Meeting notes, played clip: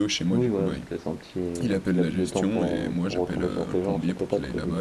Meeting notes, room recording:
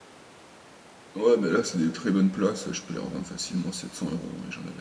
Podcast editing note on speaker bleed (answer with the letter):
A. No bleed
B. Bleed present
A